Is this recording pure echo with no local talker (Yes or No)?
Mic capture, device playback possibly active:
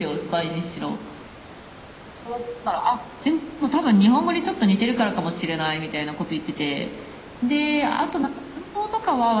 Yes